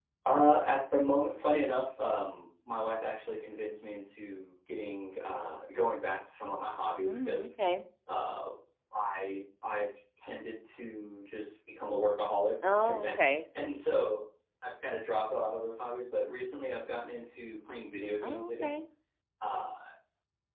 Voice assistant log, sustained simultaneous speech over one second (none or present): none